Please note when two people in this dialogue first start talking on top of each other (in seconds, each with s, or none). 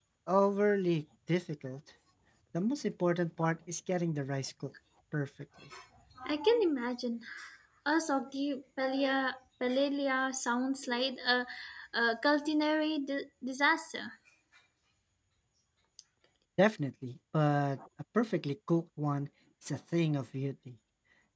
none